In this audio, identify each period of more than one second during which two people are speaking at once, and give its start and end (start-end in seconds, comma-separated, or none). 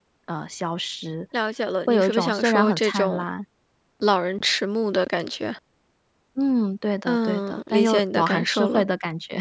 1.9-3.2, 7.1-8.8